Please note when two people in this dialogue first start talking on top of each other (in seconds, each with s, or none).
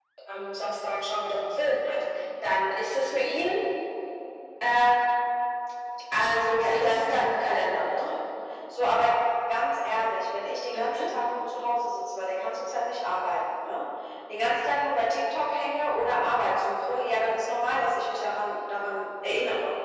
6.6 s